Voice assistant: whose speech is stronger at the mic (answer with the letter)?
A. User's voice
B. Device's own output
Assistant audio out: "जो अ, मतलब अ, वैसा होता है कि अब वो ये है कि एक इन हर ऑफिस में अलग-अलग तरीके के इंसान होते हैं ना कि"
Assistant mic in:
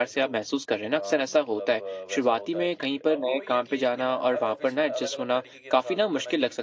A